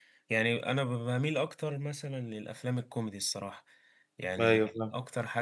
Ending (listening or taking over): listening